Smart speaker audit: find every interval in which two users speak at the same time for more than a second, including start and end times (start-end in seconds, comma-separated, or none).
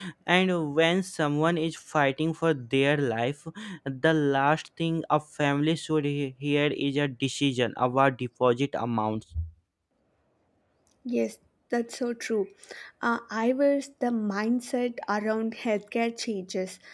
none